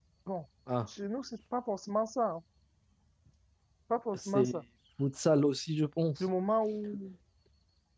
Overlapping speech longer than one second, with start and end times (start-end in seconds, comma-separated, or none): none